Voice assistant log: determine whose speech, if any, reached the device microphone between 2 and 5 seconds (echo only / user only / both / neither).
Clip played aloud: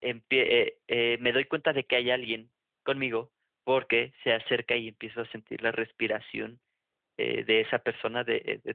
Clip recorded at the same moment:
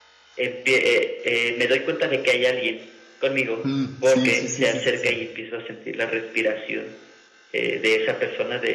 both